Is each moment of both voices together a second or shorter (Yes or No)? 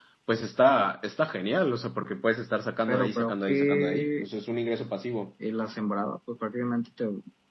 No